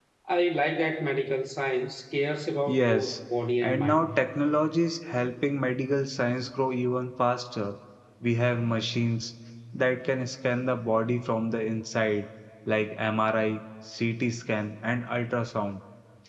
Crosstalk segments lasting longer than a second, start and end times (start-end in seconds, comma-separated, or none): none